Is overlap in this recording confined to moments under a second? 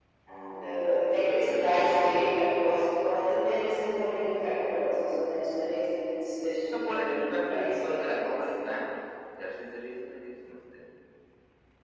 No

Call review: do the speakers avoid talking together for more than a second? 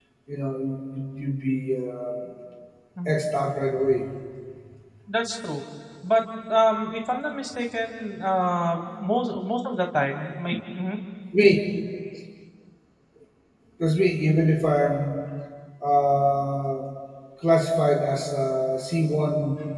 Yes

